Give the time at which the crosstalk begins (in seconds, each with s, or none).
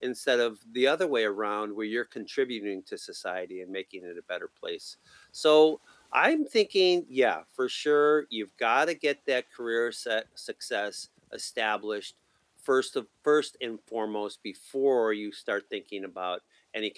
none